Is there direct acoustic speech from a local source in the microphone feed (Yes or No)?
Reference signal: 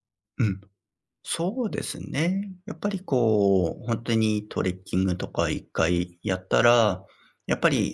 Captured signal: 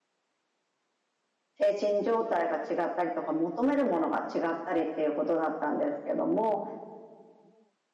Yes